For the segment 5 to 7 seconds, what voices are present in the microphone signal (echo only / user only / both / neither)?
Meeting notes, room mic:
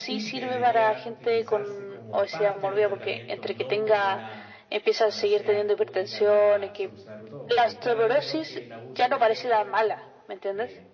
both